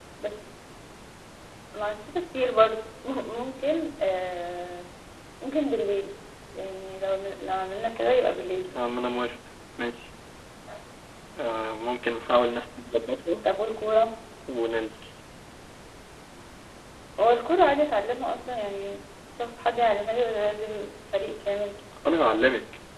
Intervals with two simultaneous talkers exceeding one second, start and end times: none

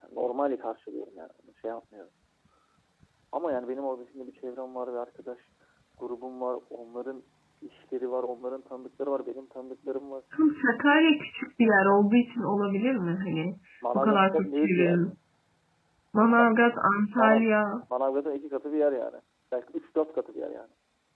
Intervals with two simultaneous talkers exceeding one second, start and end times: 13.9-15.1

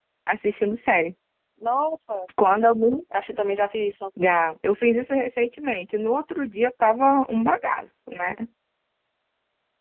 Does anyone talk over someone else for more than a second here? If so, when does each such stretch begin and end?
none

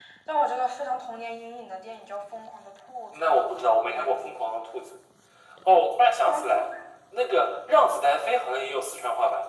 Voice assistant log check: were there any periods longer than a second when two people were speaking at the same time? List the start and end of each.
none

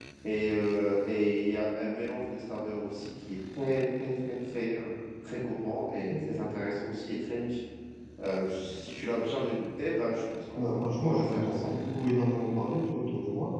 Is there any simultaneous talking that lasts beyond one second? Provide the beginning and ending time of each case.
10.6-11.8

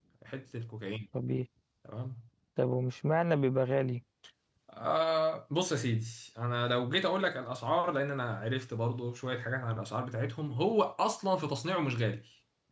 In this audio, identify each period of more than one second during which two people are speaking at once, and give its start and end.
none

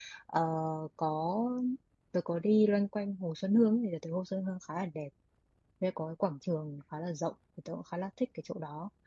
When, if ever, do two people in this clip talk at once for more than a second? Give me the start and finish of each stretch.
none

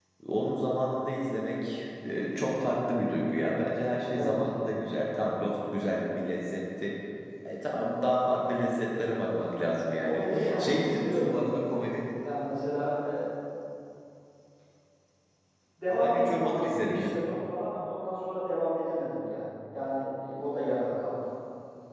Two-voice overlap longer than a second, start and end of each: 10.0-11.3, 15.9-17.1

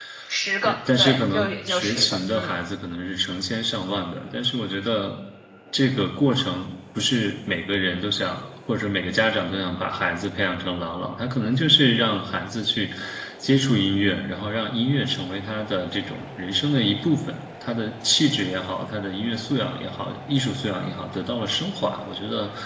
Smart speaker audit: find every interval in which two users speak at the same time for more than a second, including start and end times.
0.7-2.6

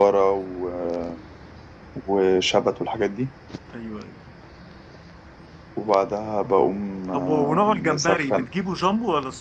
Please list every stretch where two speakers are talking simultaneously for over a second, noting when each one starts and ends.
7.1-8.5

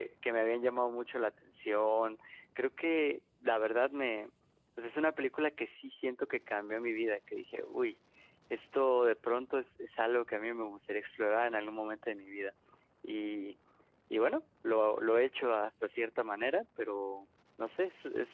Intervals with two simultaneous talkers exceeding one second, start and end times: none

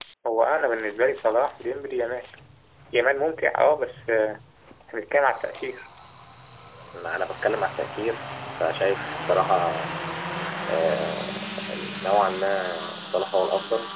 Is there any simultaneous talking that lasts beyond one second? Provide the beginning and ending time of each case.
none

